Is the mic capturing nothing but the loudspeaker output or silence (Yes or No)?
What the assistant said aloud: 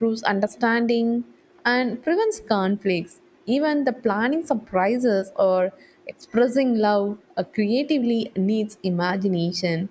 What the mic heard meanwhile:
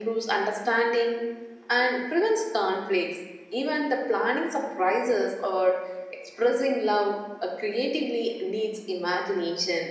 Yes